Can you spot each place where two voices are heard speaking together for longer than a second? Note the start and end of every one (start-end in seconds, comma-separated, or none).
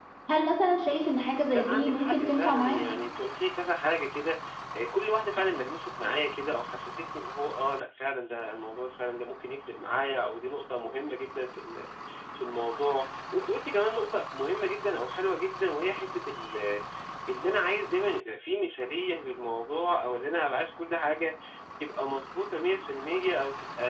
1.5-2.8